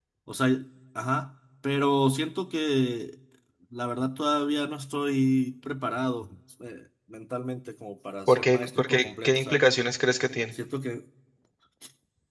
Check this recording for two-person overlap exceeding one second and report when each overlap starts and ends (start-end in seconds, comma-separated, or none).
8.3-9.7